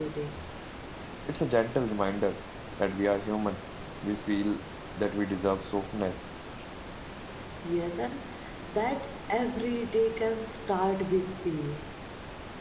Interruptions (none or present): none